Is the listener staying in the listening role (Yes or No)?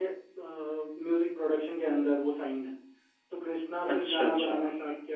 Yes